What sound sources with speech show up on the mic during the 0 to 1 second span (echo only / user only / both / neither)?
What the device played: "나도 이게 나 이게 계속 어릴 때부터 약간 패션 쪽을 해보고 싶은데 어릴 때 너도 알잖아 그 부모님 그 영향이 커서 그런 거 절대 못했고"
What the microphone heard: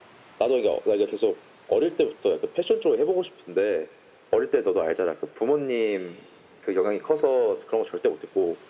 echo only